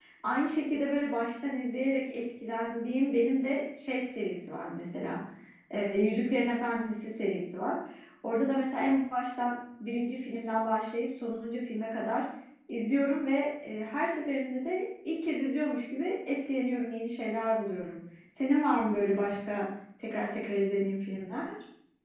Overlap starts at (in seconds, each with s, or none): none